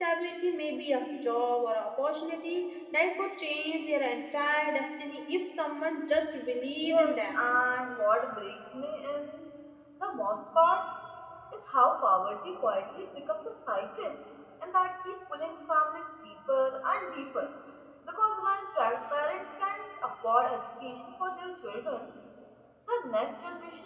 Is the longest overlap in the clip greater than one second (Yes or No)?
No